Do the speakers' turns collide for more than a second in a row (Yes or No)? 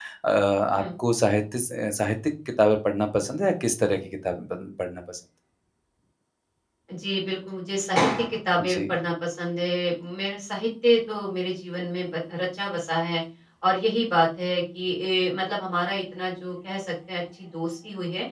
No